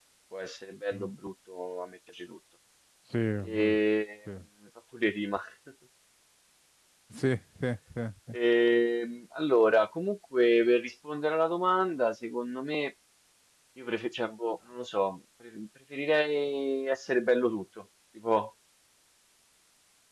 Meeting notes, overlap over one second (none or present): none